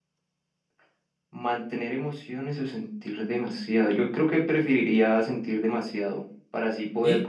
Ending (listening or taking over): listening